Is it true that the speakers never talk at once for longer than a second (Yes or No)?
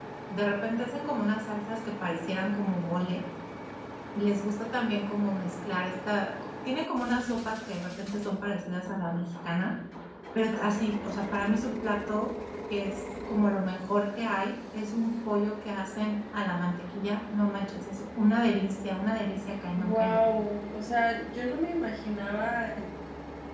Yes